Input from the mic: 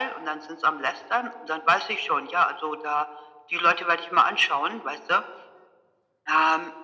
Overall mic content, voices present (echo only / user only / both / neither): echo only